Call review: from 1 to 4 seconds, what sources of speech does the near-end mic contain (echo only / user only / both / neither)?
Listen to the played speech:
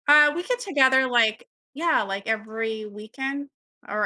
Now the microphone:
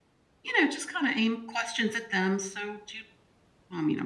user only